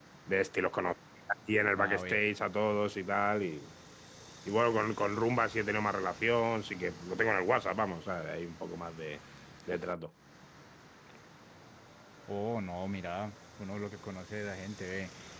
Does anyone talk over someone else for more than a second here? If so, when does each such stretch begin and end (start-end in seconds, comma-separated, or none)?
none